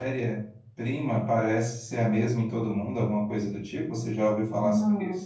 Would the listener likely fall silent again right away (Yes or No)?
No